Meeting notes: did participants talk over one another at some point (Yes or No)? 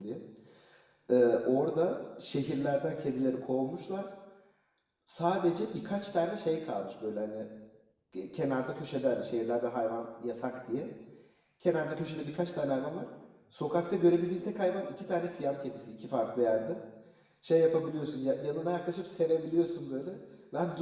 No